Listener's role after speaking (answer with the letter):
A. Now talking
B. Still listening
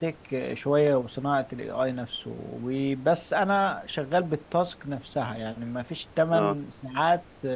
B